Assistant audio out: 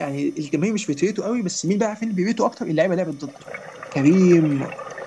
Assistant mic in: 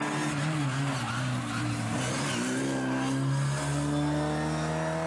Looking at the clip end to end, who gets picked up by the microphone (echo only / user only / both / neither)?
neither